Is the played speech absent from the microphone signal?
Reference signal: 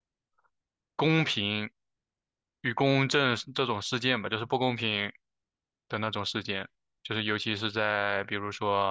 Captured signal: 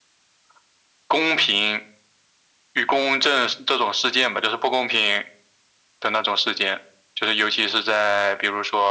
No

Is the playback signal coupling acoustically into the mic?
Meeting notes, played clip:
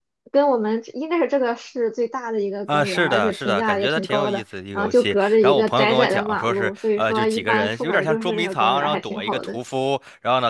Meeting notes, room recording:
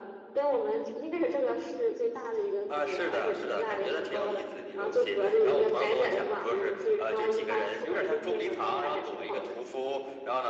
Yes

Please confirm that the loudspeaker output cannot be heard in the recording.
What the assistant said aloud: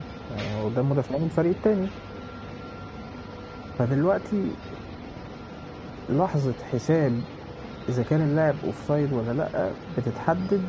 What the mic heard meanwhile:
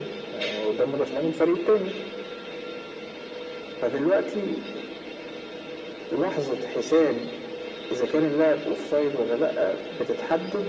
No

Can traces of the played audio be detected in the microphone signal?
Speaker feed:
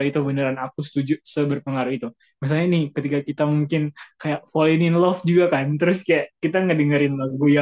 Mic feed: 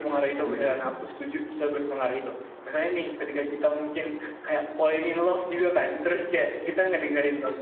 Yes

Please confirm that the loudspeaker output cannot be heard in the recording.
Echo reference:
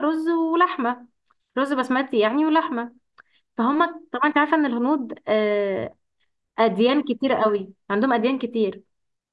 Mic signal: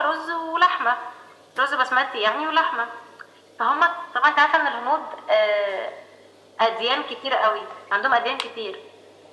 No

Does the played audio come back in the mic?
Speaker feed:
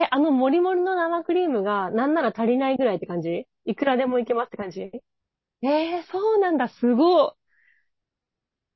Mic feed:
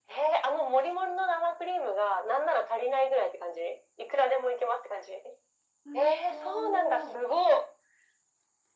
Yes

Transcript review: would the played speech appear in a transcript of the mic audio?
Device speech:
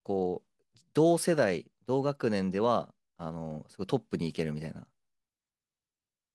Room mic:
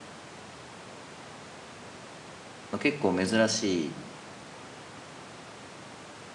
No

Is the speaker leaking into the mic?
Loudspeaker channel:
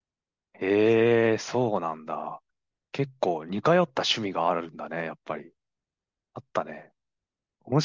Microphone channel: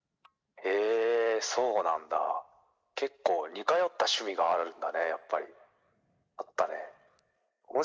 Yes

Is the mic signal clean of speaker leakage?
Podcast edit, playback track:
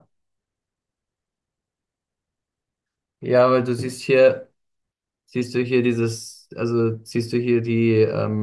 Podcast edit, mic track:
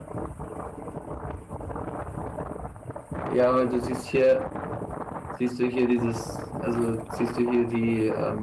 No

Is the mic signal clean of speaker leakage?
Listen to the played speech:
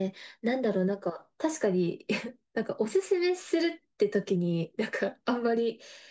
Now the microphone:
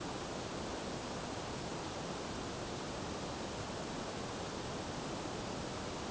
Yes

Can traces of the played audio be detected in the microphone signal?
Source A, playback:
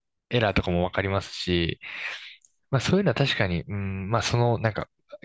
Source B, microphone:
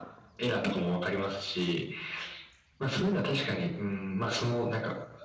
Yes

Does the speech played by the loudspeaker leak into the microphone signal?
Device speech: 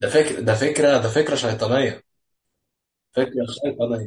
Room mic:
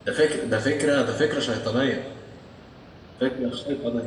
Yes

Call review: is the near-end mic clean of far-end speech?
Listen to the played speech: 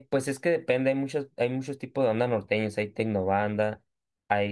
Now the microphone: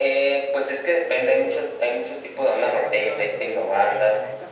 No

